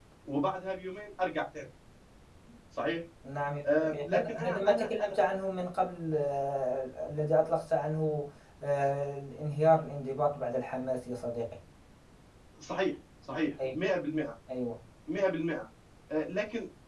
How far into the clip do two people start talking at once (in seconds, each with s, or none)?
3.8 s